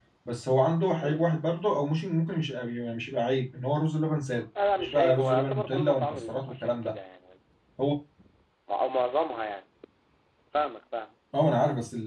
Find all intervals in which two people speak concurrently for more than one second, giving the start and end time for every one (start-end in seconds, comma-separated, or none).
4.8-7.0